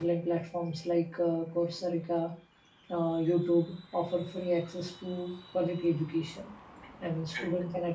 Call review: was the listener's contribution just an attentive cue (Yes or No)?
Yes